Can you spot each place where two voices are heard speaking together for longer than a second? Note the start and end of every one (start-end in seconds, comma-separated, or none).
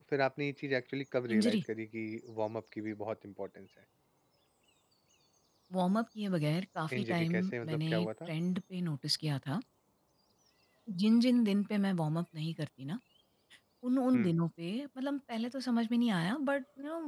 7.0-8.3